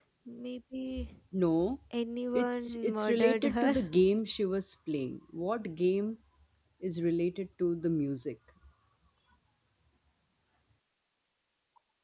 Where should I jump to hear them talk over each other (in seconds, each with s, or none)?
2.3 s